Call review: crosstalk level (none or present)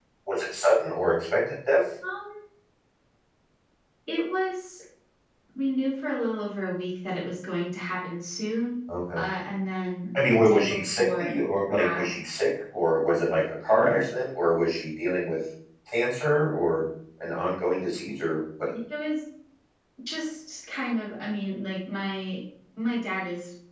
present